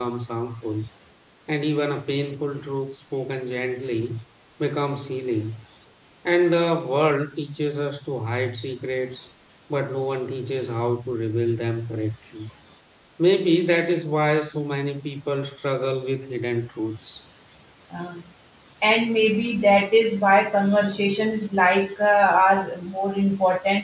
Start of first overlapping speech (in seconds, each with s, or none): none